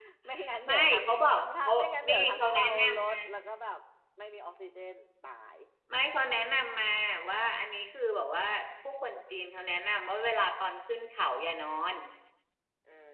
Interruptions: present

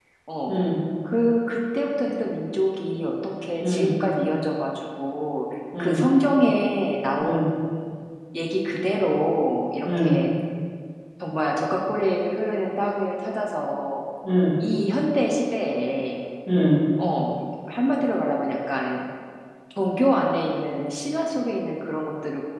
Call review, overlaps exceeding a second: none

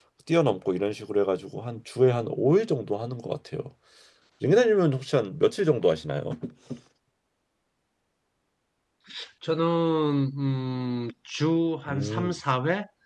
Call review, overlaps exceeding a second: none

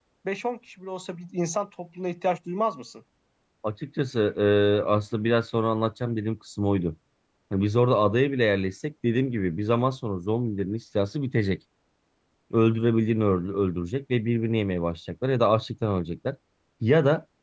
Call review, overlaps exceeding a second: none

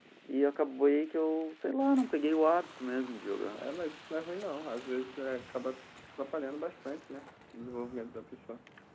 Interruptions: none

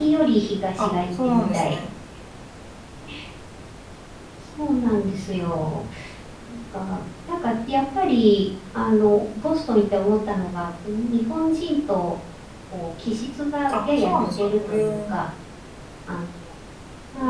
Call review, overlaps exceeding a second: present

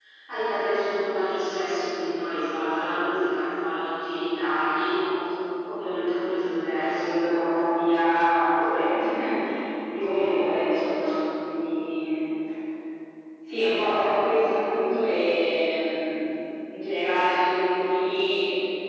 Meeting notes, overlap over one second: present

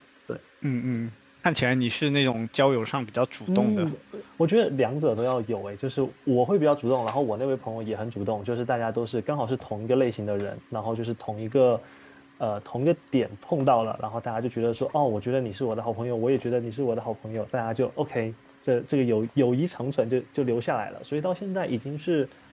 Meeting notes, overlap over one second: none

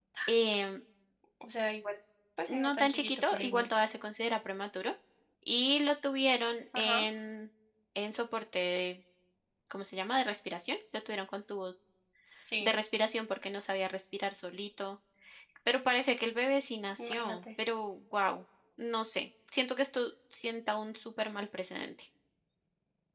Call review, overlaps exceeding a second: present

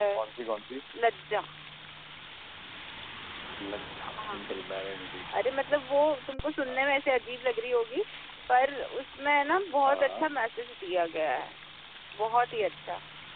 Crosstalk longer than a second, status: none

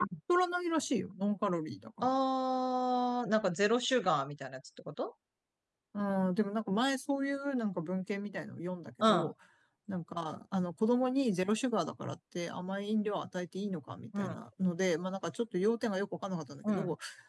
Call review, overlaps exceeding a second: none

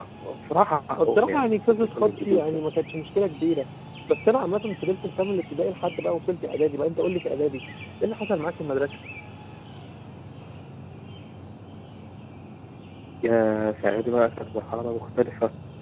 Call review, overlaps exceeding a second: present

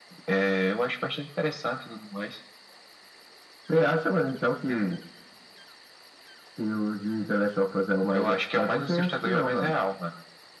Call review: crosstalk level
present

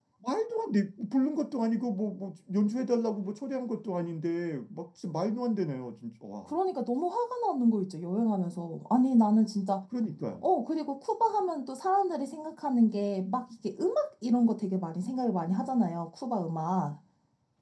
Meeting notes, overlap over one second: none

